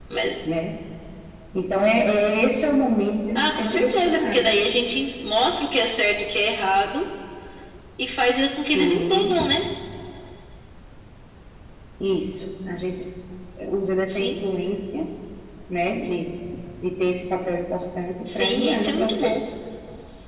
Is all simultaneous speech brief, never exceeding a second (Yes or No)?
No